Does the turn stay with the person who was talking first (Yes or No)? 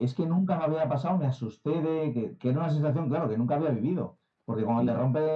Yes